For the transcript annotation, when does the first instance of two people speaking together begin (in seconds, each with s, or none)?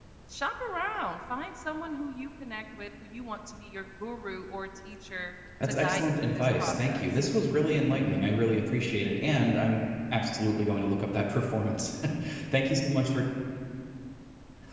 5.6 s